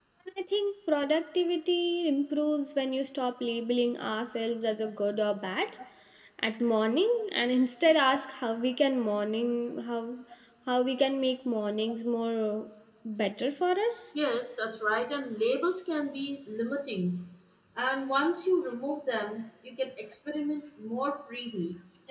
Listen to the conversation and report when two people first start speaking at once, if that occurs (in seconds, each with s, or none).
none